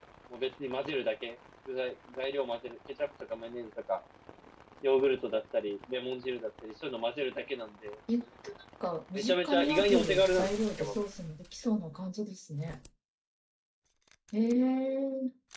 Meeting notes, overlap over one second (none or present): present